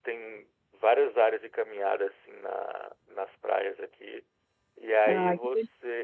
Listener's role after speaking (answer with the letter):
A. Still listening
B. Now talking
A